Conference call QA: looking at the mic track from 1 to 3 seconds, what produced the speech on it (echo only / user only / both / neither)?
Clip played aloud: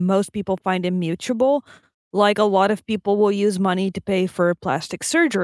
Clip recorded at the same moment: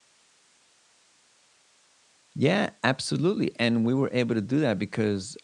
user only